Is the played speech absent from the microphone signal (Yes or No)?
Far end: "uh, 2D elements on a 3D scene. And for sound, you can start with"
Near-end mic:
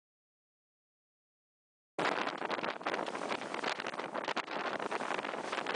Yes